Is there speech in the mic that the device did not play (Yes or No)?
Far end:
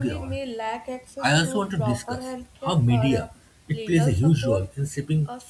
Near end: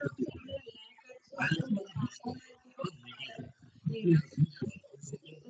No